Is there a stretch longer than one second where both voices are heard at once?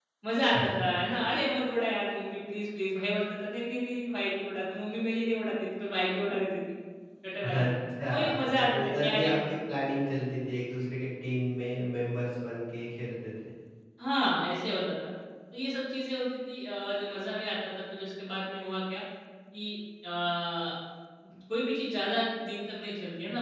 Yes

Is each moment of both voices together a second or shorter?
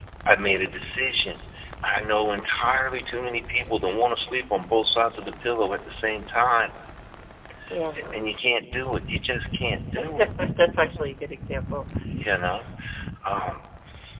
Yes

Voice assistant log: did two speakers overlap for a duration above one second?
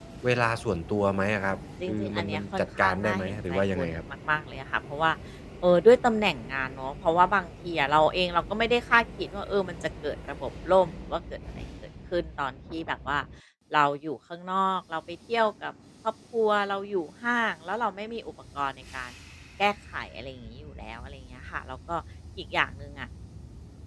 Yes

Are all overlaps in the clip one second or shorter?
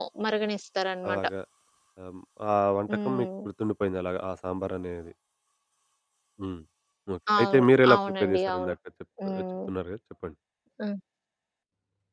No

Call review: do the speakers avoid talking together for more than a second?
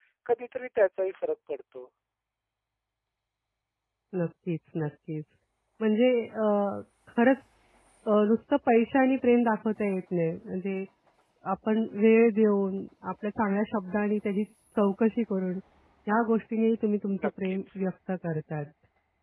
Yes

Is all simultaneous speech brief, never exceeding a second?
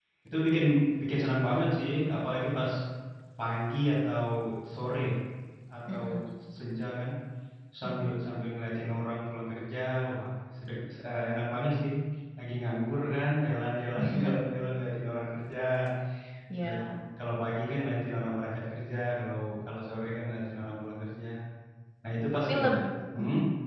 Yes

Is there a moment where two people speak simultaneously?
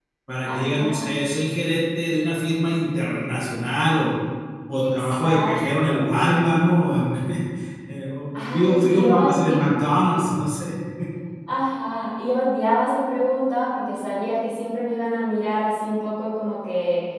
Yes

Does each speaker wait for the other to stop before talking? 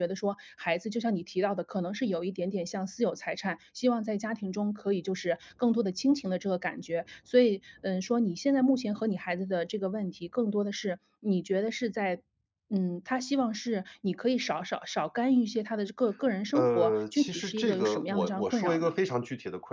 No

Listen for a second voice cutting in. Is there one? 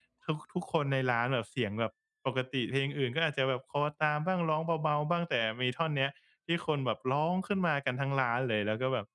No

